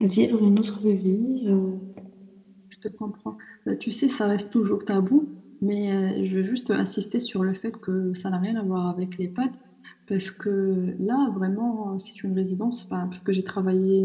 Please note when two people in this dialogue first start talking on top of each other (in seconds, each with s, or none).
none